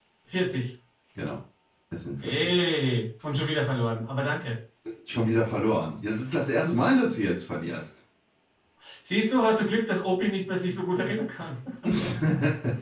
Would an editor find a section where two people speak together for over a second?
No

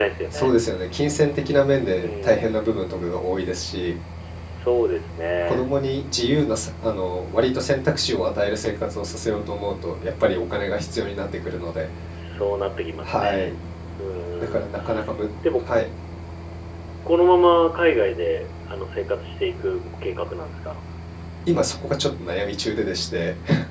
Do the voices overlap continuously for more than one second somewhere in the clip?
No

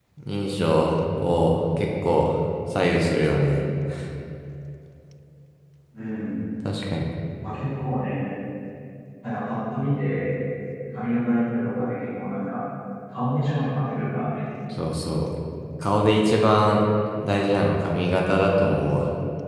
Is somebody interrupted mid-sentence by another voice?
No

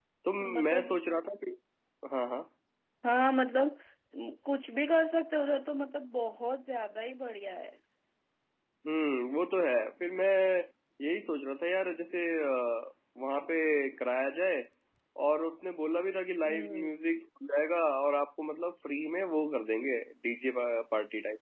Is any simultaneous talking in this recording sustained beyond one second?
No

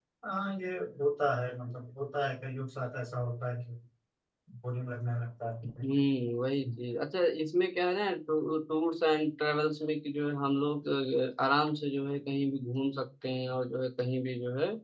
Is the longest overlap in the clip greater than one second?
No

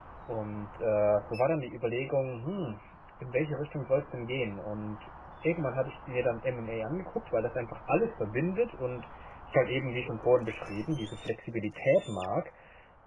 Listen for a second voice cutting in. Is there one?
No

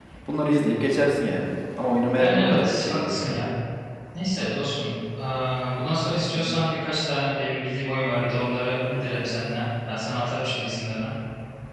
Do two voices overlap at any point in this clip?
Yes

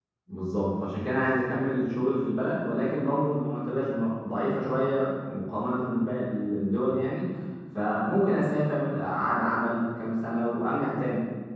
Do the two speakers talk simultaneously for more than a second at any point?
No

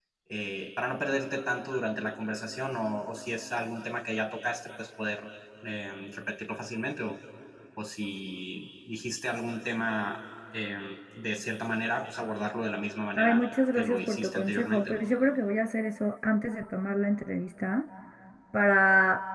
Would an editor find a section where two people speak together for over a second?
Yes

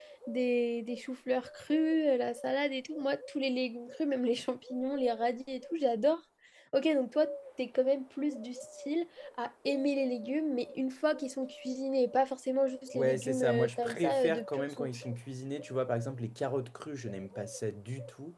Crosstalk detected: Yes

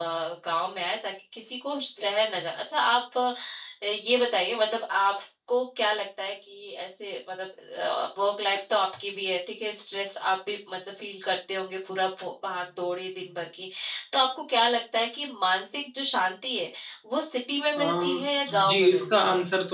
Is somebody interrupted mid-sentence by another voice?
Yes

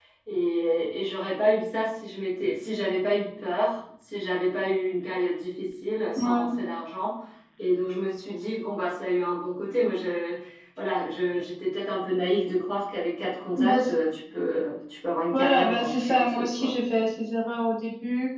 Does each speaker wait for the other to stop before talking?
No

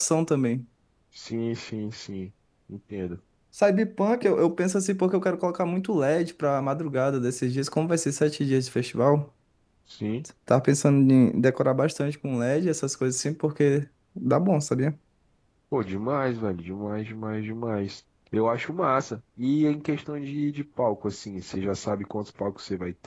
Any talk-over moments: No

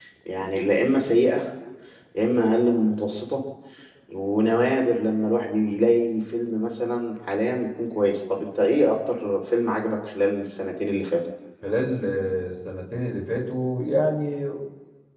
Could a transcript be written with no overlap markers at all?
Yes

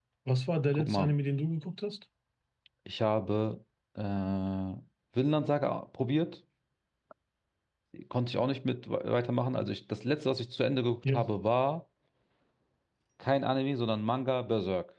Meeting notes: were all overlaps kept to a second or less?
Yes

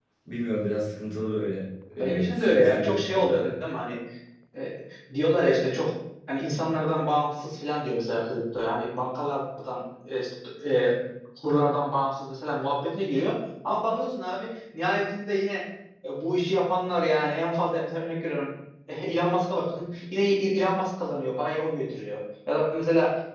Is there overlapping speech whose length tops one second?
Yes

